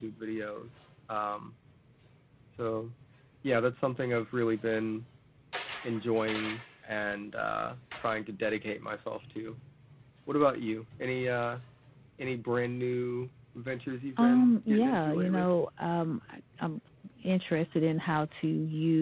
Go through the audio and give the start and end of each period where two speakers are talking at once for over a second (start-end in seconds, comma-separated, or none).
14.2-15.5